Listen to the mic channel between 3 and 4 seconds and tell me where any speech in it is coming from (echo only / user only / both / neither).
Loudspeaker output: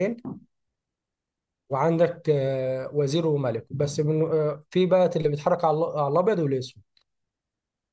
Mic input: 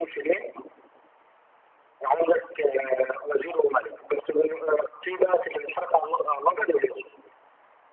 echo only